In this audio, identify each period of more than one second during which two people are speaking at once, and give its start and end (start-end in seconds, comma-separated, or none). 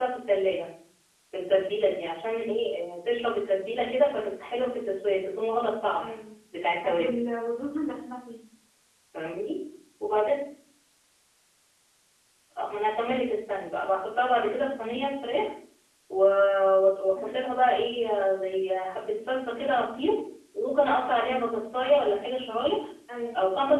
none